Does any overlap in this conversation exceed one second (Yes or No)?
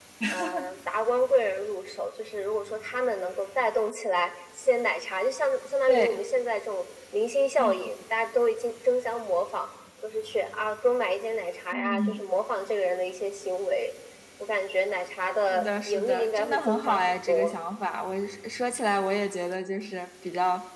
Yes